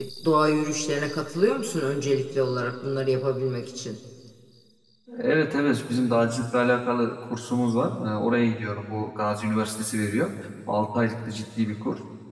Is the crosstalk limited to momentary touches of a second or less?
Yes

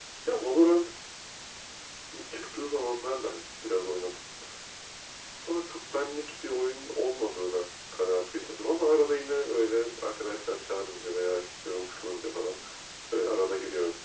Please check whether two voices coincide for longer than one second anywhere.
No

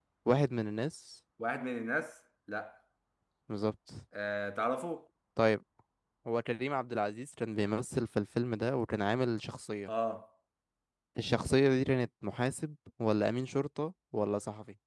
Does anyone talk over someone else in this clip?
No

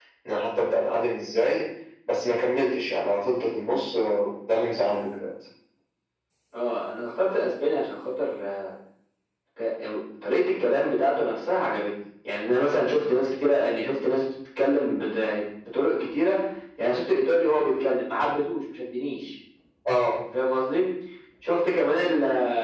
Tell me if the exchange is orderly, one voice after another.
Yes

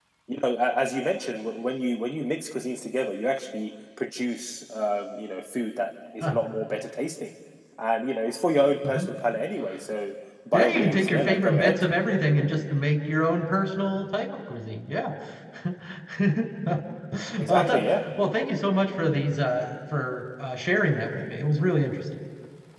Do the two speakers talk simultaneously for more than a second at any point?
Yes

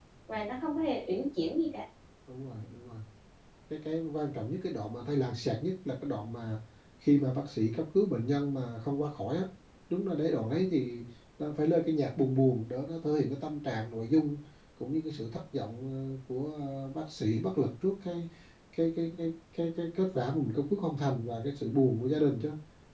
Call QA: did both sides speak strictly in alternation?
Yes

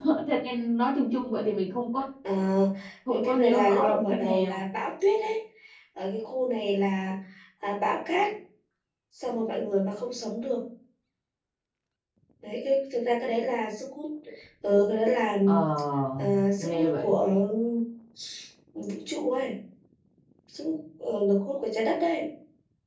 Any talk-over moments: Yes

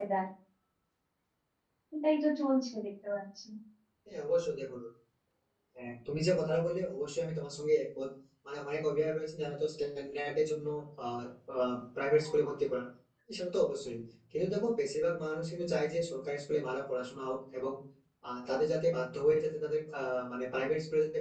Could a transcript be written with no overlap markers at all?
Yes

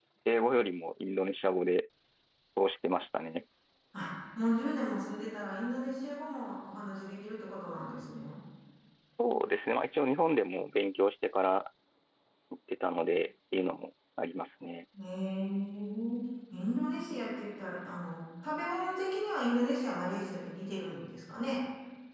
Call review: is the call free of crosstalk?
Yes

